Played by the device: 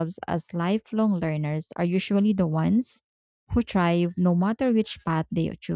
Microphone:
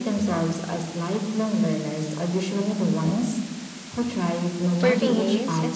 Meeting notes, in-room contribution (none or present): present